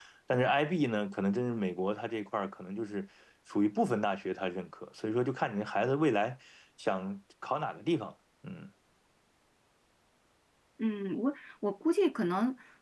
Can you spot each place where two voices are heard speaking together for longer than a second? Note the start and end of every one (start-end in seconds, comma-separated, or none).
none